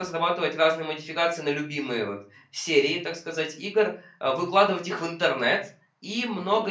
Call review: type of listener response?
listening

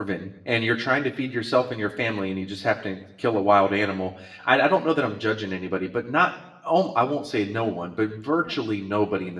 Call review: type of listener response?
listening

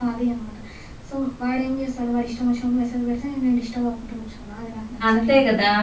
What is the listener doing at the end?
taking over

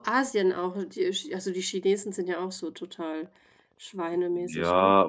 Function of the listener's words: taking over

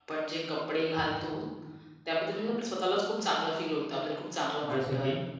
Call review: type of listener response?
listening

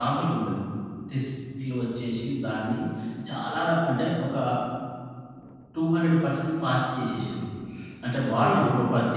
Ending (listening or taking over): listening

